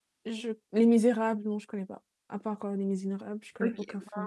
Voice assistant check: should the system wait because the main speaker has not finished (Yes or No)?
No